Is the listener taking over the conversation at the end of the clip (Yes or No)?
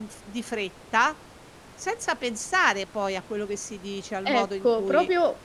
Yes